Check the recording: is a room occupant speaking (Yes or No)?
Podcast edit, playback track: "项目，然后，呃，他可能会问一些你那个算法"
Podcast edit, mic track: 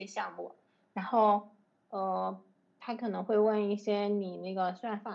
No